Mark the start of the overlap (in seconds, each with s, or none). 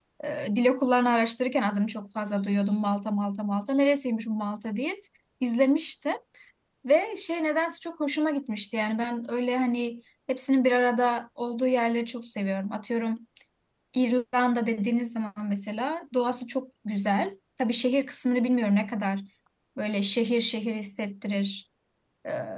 none